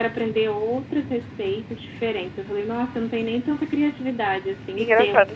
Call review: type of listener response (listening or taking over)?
taking over